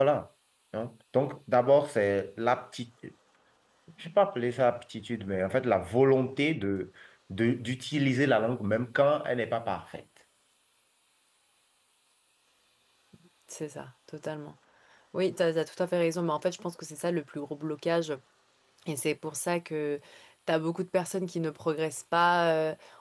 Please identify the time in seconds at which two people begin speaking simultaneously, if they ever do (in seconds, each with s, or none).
none